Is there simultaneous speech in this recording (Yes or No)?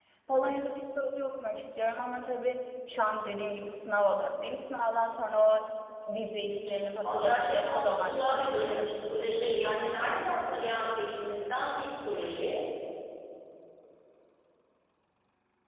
Yes